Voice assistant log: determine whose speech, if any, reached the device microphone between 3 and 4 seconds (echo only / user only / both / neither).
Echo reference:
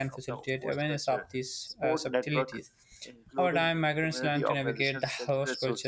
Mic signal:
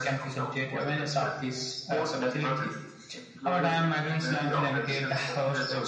echo only